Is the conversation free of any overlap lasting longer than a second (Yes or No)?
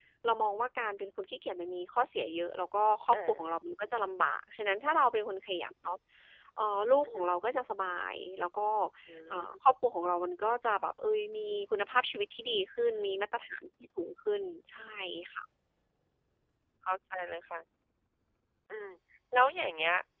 Yes